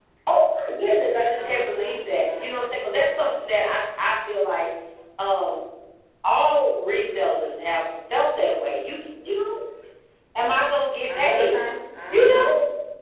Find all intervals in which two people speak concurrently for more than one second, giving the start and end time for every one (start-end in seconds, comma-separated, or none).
1.4-2.6